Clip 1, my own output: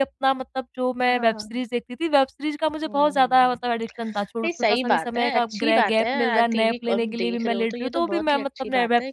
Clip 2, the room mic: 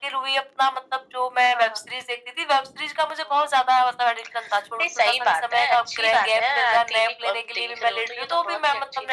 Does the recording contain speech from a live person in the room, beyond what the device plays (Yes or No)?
No